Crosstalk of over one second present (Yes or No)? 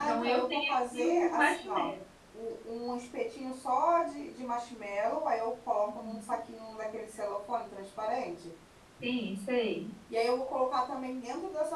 Yes